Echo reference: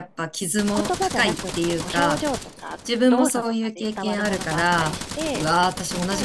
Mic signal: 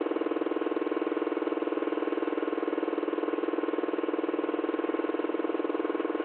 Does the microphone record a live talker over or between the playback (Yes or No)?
No